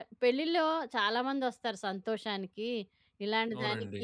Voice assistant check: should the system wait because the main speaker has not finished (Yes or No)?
Yes